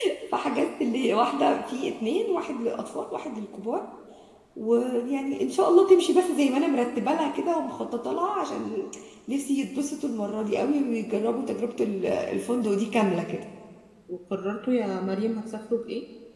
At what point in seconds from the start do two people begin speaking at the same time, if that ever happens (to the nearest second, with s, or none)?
none